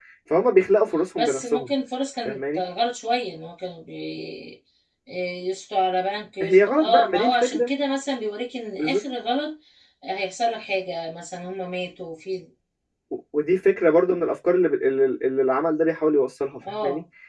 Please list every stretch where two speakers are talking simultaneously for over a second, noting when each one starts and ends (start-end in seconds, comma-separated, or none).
6.4-7.7